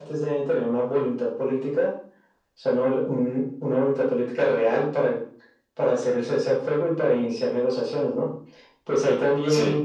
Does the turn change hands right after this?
No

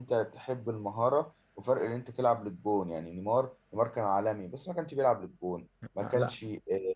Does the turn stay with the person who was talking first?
Yes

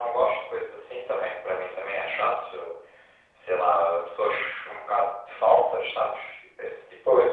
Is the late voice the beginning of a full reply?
Yes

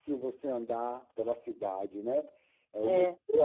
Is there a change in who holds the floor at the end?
No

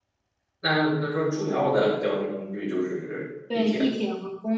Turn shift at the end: Yes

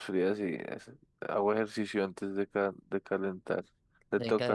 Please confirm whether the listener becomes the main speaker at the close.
Yes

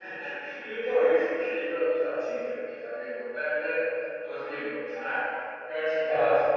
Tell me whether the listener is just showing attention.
Yes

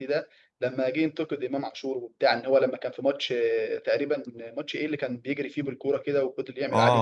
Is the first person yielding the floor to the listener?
Yes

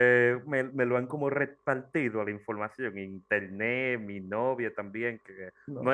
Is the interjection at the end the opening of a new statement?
No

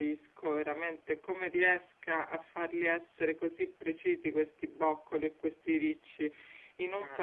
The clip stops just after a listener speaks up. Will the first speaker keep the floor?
Yes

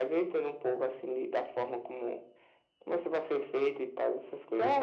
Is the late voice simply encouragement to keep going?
No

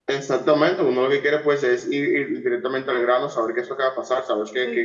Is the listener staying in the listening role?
Yes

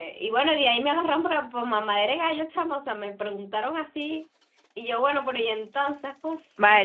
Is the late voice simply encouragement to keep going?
No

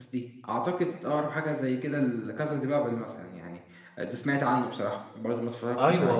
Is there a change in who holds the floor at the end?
Yes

